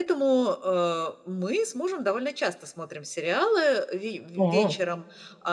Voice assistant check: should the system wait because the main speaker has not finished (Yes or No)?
Yes